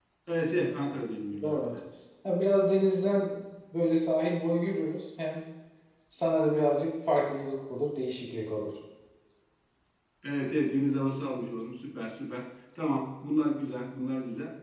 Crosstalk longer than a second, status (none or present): none